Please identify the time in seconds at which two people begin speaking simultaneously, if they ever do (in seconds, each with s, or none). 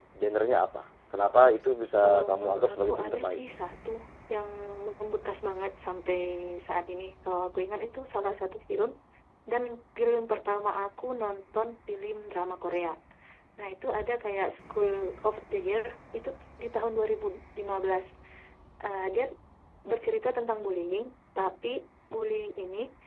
2.0 s